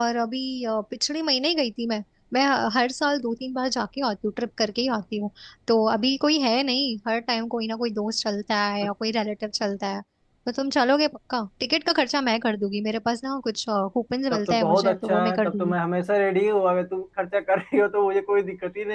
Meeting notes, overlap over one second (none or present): present